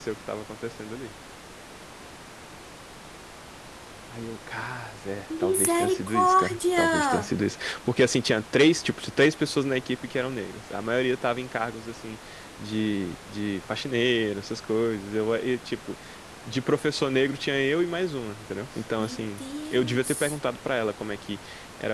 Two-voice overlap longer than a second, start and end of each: 5.4-7.3, 19.0-20.4

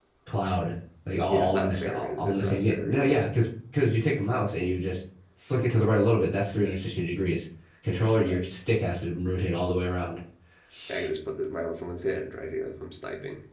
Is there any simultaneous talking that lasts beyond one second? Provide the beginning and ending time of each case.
1.3-3.2

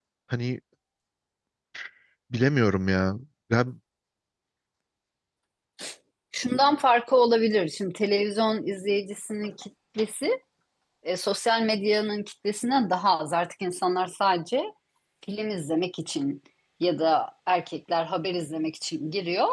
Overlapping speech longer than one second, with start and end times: none

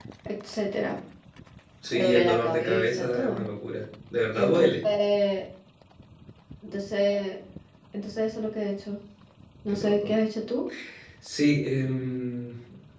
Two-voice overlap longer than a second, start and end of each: 1.9-3.4

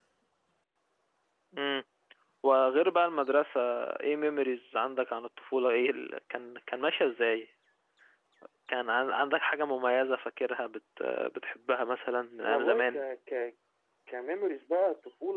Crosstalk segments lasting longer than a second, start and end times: none

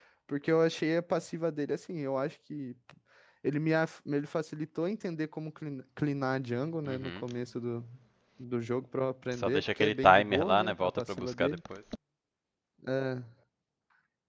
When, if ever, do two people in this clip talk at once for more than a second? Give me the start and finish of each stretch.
9.3-11.6

